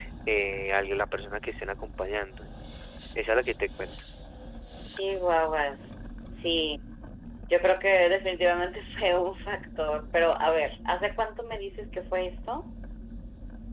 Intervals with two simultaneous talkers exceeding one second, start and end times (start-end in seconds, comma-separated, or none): none